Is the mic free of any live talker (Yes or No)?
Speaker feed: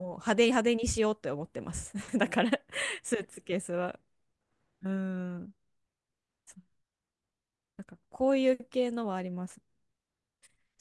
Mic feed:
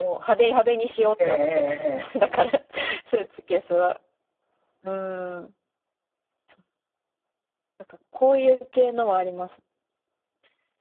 No